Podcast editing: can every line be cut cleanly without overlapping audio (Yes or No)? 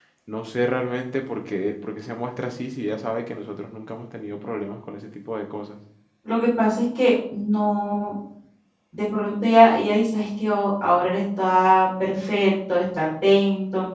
Yes